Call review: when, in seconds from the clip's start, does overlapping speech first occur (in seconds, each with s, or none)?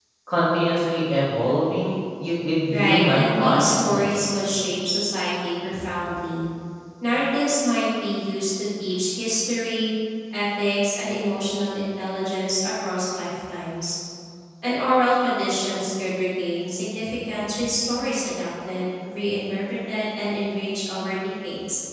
2.7 s